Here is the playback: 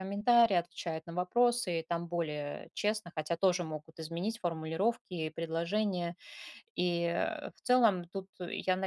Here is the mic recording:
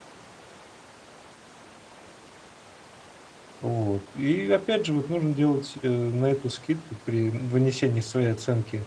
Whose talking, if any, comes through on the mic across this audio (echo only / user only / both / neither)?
user only